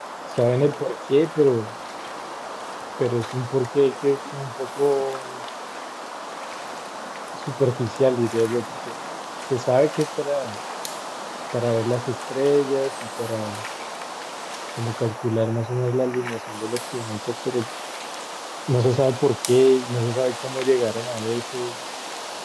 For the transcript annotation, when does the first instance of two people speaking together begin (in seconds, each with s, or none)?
none